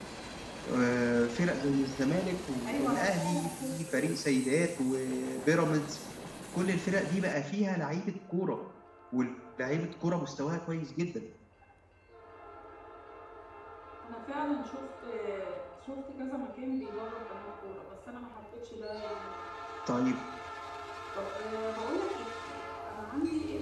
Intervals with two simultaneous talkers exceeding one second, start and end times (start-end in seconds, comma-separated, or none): 2.6-4.1